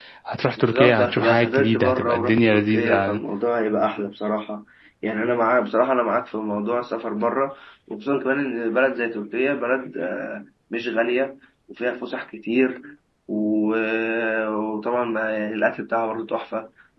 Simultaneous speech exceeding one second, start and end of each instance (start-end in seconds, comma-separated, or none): 0.6-3.2